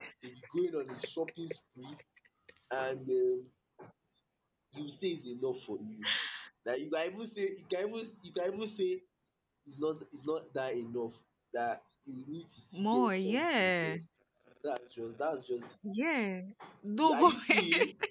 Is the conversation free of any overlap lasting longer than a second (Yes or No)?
No